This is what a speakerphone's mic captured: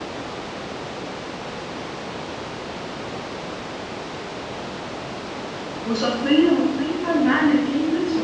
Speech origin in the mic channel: user only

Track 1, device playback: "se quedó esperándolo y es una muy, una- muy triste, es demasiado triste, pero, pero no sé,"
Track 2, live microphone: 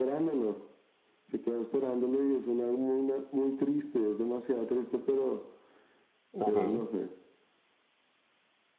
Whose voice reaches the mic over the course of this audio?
both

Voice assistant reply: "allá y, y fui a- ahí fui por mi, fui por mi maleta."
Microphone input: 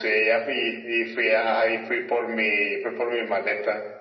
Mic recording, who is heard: echo only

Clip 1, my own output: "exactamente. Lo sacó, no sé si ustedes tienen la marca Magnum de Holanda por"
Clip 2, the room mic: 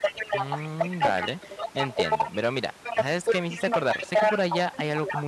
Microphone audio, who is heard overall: both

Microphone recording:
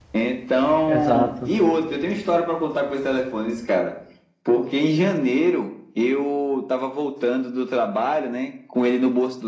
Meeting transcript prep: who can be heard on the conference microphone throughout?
both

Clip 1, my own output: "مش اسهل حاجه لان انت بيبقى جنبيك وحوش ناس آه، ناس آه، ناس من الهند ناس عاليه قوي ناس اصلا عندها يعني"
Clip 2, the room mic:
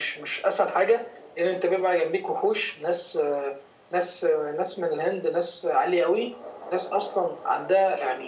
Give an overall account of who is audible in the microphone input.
echo only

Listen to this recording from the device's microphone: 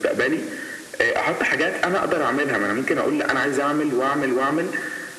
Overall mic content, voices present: echo only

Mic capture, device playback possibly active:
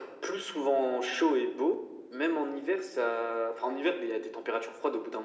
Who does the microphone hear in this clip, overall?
echo only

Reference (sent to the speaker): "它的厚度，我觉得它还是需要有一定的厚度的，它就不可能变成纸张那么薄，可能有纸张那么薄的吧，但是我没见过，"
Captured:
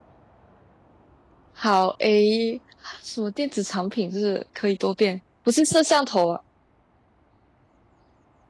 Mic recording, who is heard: user only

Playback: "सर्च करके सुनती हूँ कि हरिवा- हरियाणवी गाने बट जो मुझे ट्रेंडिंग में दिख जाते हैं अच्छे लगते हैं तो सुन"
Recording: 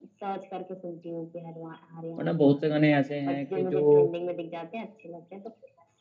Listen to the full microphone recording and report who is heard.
both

